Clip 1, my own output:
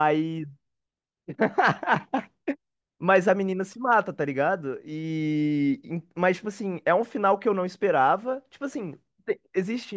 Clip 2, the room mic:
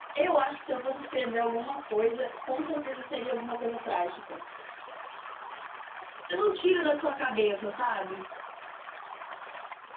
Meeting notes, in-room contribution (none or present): present